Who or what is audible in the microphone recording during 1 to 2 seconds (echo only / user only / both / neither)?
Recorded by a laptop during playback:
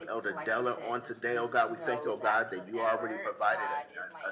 both